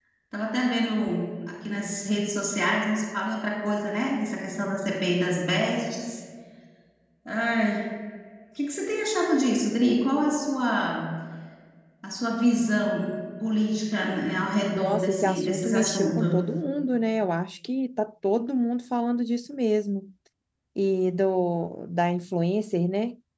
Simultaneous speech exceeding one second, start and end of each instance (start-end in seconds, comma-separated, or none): 14.7-16.4